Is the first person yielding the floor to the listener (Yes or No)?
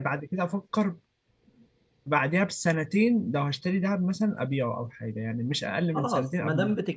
Yes